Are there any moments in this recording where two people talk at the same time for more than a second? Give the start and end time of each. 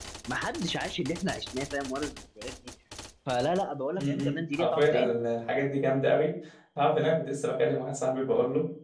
4.0-5.2

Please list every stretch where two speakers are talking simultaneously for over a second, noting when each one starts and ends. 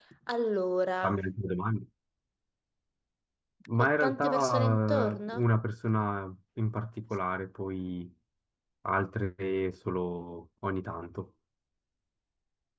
3.8-5.4

